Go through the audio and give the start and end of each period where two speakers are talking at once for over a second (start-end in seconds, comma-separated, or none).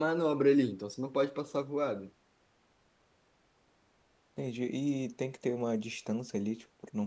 none